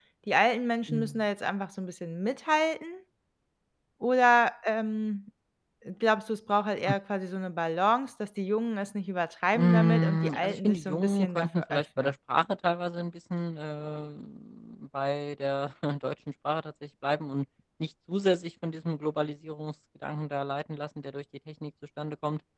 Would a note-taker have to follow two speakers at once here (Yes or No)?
Yes